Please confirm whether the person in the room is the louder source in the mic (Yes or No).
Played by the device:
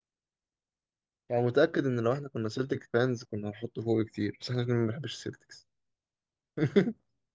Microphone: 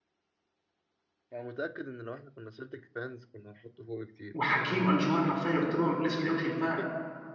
Yes